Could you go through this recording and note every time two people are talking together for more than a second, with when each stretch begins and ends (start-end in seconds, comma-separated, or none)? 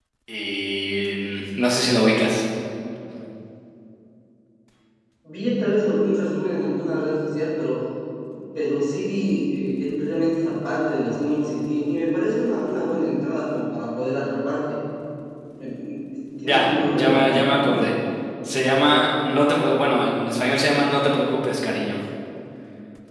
16.4-17.7